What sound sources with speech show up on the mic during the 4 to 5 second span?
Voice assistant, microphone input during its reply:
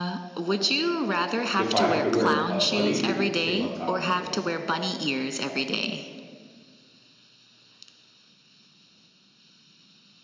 both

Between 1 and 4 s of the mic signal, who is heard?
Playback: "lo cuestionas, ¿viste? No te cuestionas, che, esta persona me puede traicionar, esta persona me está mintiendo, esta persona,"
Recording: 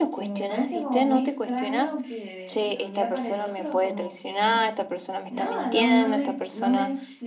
both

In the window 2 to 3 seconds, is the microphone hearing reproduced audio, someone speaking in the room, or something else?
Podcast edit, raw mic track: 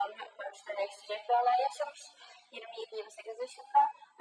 echo only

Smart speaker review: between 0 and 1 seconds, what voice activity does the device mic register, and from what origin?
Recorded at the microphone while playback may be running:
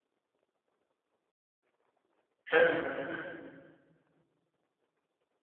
neither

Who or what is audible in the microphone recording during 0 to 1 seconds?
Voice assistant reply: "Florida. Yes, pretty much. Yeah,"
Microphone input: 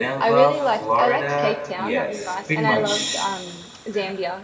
both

